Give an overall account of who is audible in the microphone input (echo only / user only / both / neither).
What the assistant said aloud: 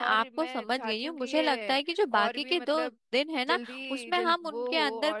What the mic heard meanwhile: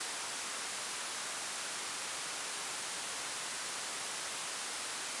neither